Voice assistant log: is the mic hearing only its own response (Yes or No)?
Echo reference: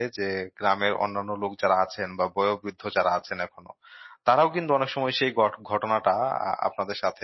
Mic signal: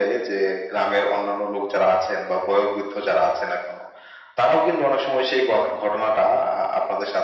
Yes